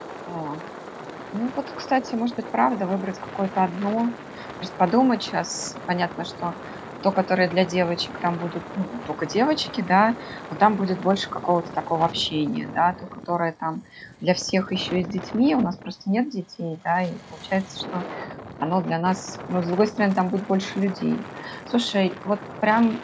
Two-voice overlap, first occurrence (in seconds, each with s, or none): none